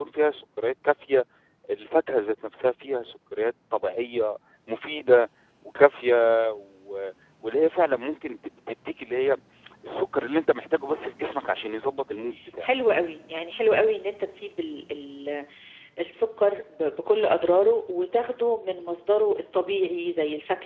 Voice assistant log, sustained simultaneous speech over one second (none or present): none